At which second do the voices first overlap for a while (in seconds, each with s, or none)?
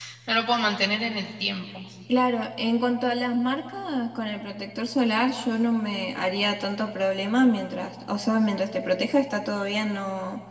none